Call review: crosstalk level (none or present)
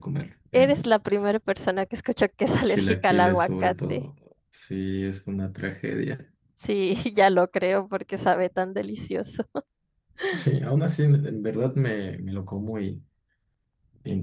present